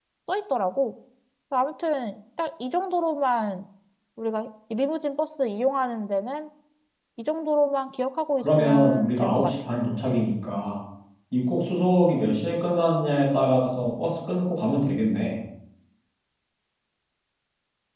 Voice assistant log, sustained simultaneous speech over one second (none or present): present